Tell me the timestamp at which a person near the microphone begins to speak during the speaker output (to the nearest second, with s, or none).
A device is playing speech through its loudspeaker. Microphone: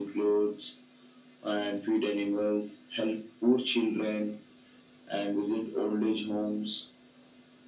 none